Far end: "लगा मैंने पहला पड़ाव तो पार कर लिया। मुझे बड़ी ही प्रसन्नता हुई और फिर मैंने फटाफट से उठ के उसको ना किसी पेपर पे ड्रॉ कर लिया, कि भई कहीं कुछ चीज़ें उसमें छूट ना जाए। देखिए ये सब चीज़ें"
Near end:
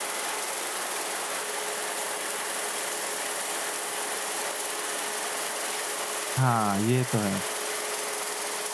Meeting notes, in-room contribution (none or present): present